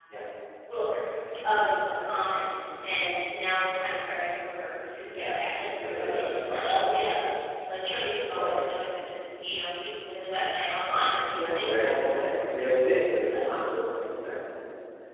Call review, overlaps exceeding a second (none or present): present